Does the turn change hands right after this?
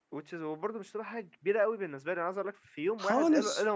No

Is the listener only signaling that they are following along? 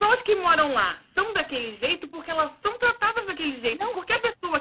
Yes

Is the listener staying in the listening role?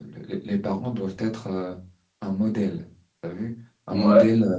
Yes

